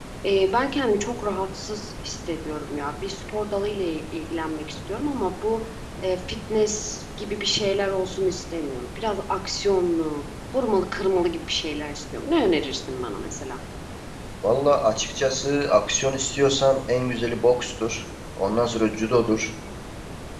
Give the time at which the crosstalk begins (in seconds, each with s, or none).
none